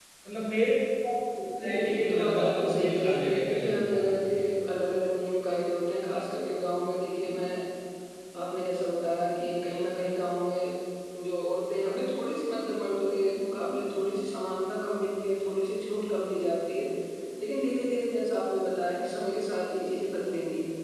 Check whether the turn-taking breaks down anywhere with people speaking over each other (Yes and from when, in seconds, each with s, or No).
Yes, from 1.6 s